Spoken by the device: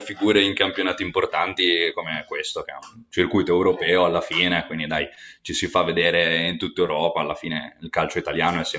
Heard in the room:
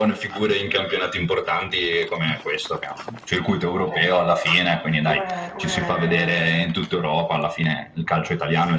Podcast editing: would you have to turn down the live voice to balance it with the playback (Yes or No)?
No